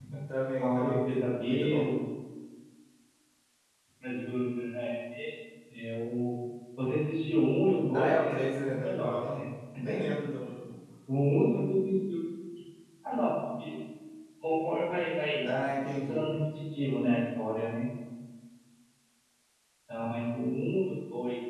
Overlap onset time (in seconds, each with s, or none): 0.6 s